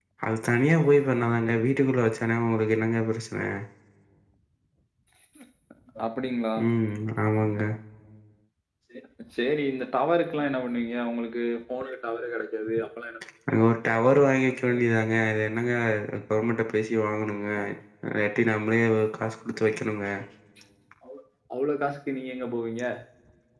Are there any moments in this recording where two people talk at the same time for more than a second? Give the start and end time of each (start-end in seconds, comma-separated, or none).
none